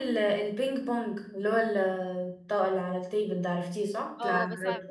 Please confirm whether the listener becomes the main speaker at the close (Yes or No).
Yes